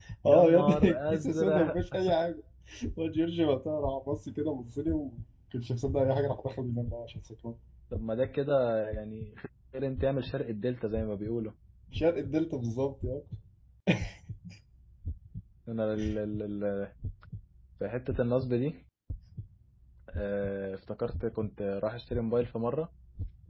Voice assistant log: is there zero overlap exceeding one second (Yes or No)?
No